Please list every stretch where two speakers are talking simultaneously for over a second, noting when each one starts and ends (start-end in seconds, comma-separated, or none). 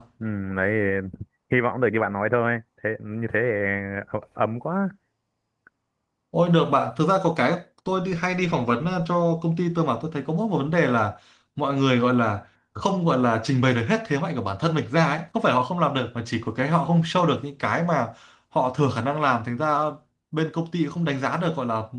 none